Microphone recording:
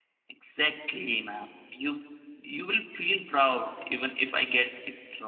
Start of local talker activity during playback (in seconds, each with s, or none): none